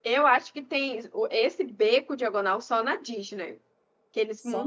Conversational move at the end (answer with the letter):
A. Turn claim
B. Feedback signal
A